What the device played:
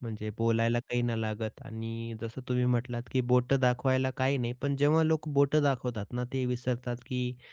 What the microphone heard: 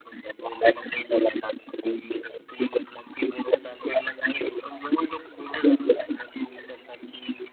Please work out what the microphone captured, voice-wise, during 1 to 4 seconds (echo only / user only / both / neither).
echo only